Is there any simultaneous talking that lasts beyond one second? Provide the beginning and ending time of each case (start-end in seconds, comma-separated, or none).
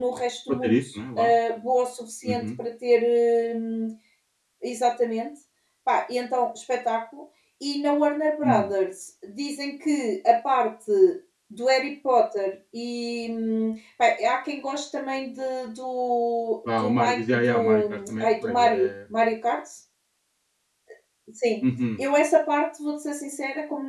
16.8-18.9